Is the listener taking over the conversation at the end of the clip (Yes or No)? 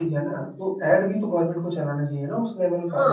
Yes